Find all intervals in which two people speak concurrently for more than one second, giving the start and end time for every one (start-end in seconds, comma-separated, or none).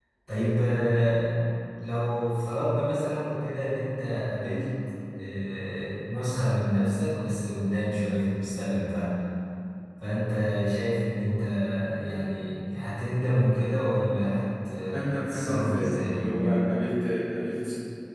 14.9-16.7